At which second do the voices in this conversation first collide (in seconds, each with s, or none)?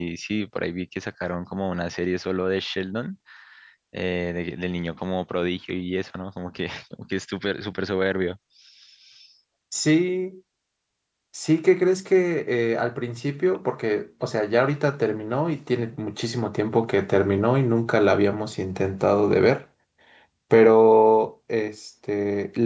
none